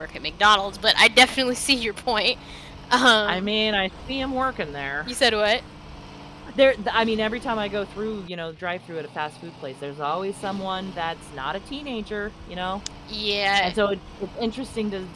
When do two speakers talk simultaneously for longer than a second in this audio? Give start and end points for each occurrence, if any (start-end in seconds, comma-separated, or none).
none